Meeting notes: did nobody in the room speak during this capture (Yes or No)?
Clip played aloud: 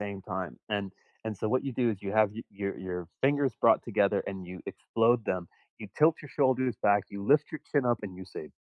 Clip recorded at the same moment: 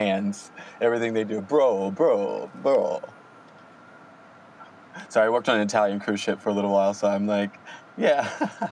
No